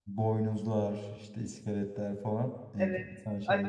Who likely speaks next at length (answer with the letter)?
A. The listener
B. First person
A